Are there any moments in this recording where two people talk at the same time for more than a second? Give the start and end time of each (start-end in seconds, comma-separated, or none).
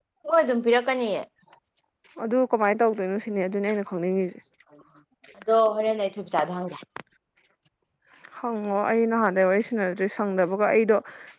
none